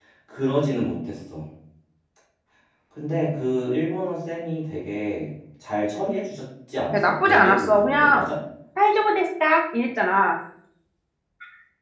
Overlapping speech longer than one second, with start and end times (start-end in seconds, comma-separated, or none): 6.9-8.2